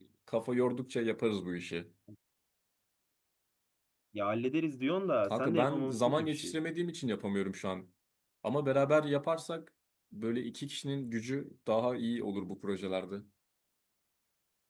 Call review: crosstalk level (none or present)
present